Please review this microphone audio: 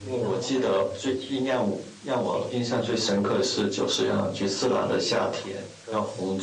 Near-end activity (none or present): present